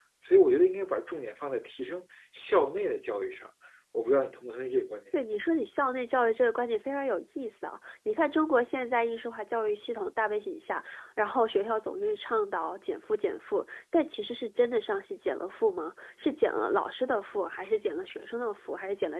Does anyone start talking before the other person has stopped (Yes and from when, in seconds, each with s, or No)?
No